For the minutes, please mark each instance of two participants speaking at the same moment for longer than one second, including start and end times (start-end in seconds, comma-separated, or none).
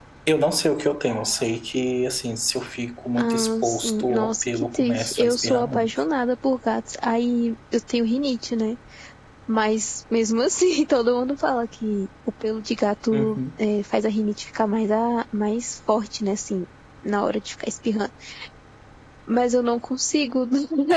3.2-5.9